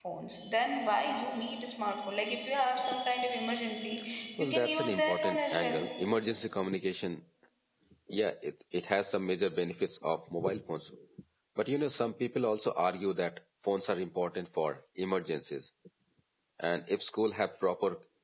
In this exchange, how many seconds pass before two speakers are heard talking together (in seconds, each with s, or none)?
4.4 s